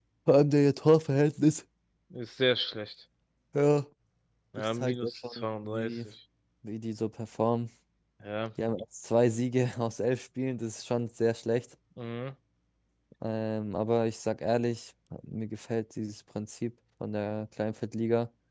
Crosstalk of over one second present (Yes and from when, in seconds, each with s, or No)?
Yes, from 4.6 s